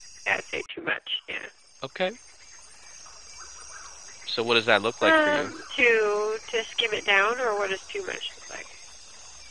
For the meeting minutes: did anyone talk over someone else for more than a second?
No

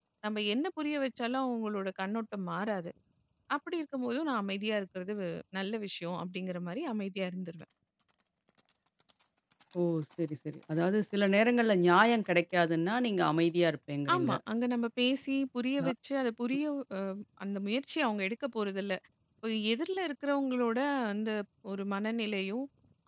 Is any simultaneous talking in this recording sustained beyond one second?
No

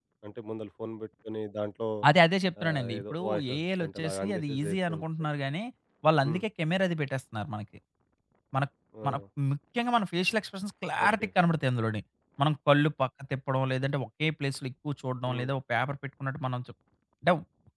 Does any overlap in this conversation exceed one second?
Yes, from 2.6 s

